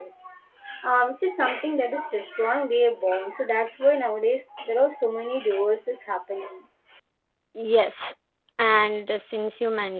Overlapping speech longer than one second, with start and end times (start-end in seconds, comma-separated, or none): none